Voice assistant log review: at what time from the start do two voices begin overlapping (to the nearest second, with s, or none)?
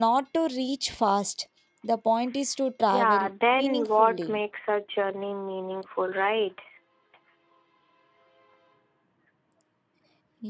3 s